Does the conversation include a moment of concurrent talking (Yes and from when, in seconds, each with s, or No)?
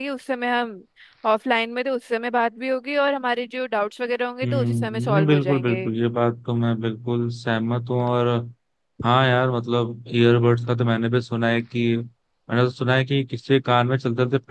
Yes, from 4.4 s